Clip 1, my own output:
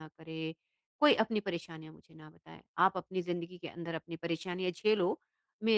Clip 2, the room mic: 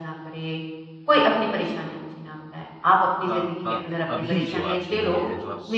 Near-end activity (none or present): present